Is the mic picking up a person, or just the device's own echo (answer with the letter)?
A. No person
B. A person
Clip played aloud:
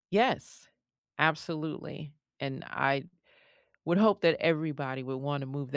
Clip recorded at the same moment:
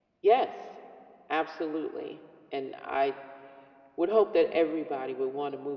A